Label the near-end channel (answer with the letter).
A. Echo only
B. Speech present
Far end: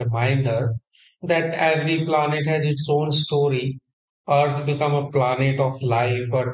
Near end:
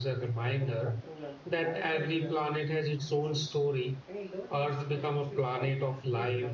B